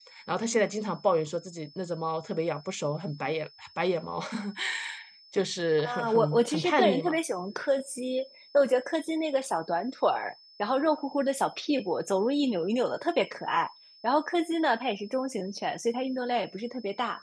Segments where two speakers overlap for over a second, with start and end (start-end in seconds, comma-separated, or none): 5.8-7.2